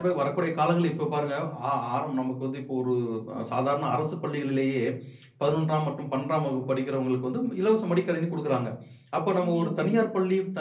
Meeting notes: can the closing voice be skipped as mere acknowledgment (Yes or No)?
Yes